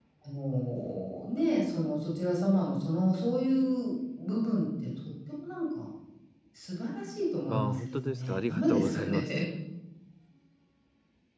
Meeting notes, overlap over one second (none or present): present